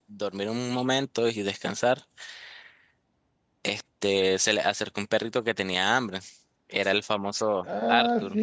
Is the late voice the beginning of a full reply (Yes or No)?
Yes